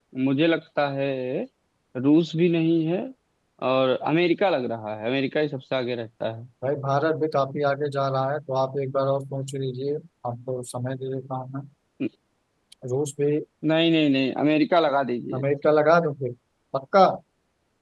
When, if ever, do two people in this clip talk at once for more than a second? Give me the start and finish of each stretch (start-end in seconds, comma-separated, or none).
none